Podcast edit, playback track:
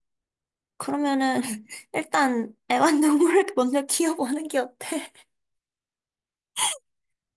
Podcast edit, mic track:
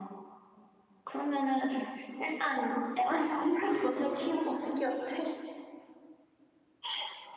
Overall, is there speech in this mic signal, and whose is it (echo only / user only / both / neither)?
both